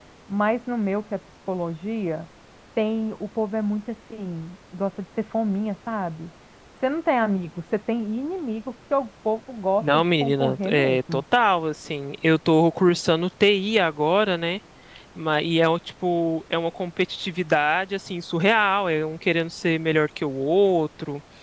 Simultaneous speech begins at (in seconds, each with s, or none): 9.8 s